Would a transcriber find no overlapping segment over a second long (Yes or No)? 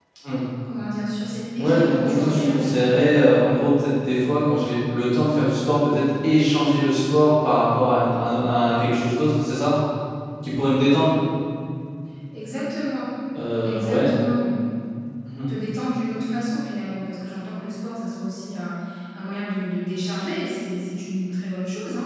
No